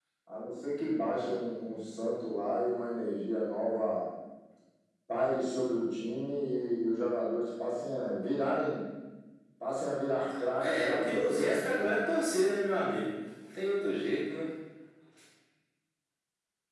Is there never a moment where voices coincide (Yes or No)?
No